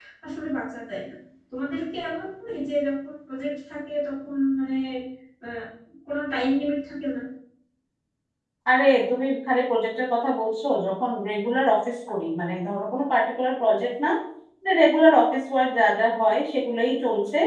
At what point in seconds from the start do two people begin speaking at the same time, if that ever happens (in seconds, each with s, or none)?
none